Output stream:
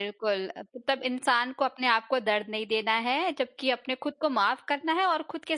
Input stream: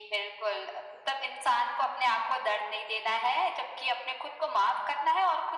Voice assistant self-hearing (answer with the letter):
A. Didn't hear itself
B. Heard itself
B